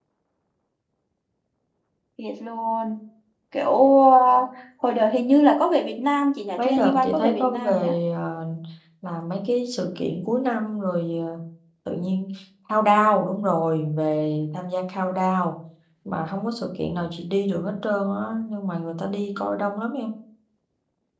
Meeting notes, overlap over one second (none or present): present